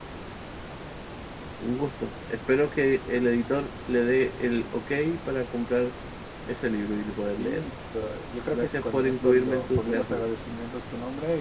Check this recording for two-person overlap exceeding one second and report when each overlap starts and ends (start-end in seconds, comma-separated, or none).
8.5-10.2